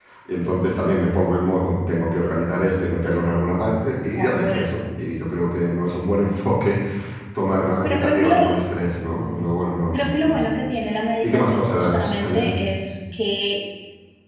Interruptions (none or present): present